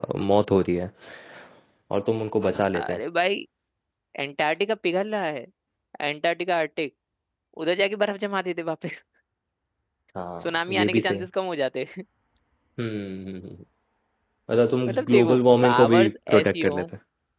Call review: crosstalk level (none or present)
present